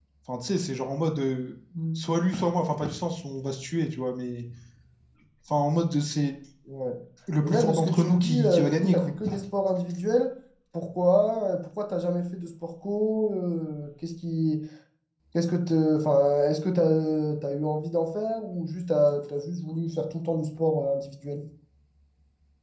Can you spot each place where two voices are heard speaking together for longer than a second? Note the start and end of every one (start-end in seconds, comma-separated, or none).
7.4-9.1